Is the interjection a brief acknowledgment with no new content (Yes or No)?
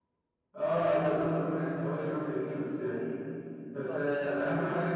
Yes